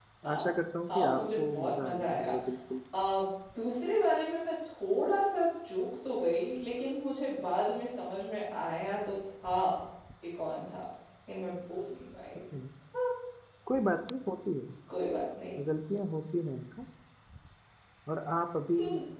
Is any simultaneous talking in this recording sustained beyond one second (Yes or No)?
Yes